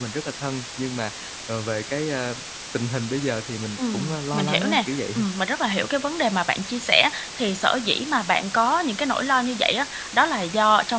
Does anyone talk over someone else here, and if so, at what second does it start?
3.8 s

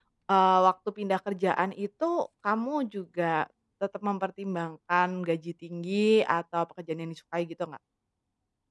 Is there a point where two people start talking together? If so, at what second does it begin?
none

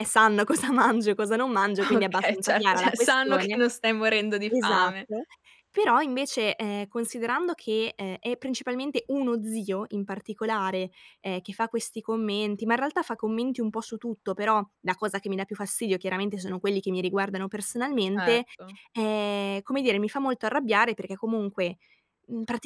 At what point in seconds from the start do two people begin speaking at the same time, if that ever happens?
1.8 s

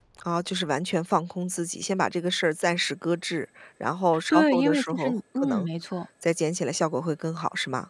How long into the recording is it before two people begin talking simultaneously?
4.3 s

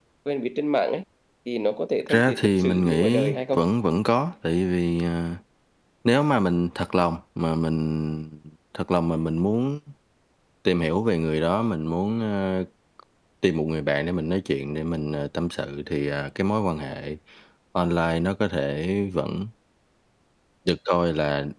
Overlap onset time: 2.1 s

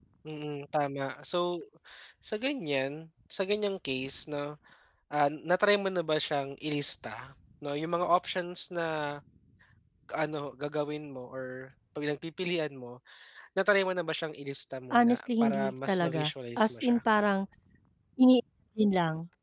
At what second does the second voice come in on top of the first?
14.9 s

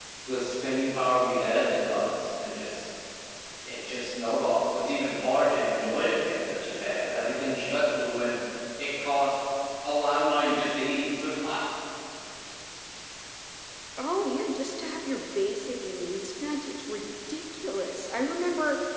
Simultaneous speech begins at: none

